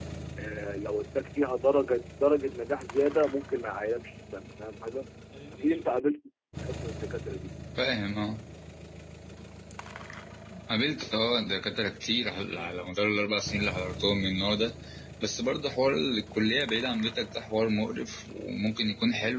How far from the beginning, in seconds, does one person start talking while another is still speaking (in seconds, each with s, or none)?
none